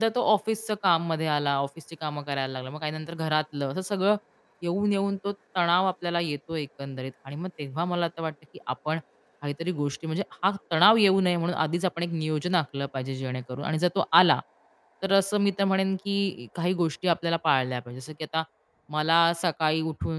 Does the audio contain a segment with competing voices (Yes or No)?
No